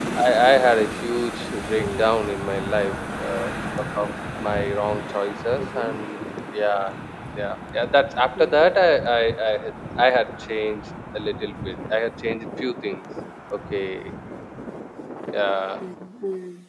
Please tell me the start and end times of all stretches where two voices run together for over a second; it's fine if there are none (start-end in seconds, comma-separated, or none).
none